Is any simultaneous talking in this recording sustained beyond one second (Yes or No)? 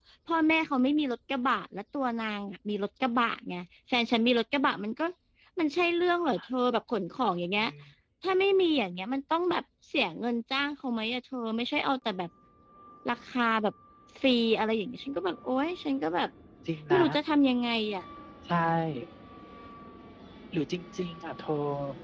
No